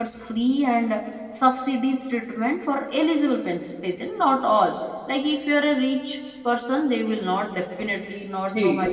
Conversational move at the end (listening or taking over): taking over